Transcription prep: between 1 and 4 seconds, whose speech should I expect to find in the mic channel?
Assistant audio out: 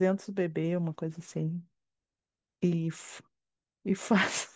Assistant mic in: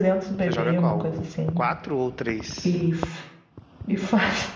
both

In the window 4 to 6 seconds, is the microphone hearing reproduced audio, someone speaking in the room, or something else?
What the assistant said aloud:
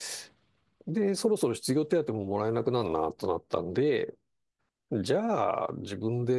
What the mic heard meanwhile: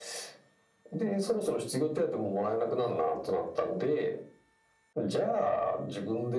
echo only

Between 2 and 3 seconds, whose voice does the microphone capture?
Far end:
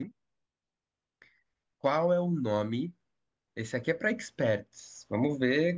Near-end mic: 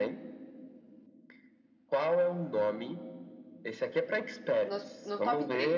echo only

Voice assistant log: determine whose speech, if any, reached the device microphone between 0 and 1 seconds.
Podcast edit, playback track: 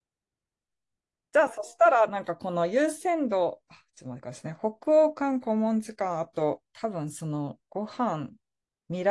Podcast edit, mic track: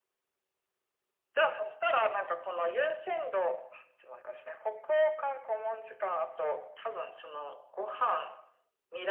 neither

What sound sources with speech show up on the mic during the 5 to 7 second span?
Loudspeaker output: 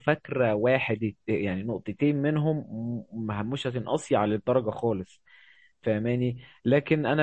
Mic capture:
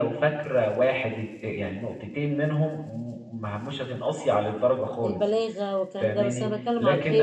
both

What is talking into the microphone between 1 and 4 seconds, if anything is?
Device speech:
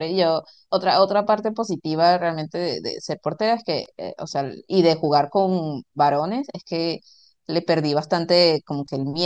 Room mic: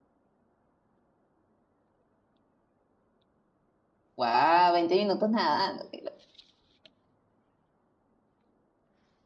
neither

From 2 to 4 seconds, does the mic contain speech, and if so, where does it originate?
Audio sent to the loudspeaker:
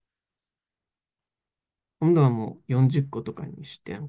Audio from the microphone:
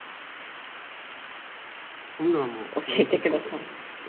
both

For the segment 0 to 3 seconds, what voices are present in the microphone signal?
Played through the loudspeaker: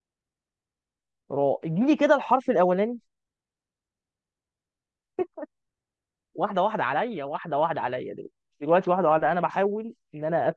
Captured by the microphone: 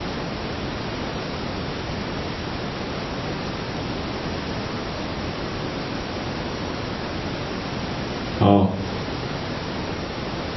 neither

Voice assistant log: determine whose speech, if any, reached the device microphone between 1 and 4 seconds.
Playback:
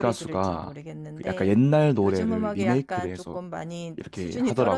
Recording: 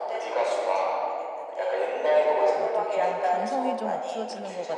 both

